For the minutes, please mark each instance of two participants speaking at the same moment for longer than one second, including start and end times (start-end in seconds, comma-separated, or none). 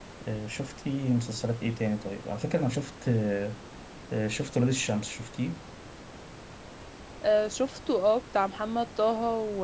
none